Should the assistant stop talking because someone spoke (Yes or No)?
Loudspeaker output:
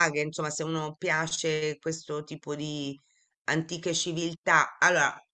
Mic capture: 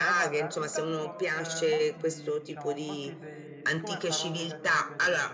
Yes